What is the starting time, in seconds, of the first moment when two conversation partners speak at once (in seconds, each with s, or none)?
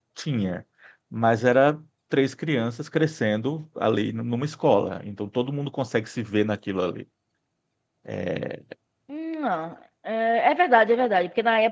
none